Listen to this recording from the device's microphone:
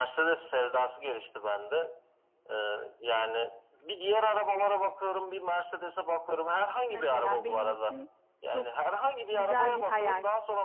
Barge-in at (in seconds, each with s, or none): 6.9 s